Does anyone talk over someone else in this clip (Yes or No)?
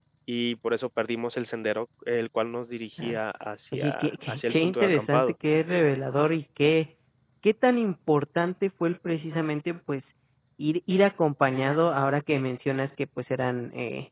Yes